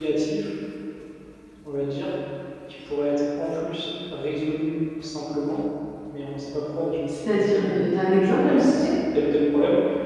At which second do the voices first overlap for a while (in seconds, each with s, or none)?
7.1 s